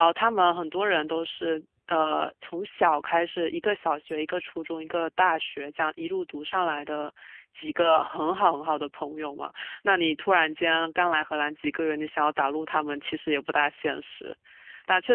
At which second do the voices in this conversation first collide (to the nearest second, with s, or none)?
none